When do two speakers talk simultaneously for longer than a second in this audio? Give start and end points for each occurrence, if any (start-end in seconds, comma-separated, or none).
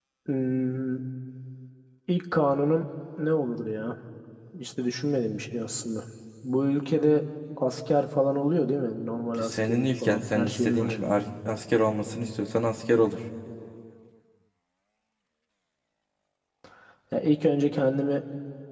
9.4-11.0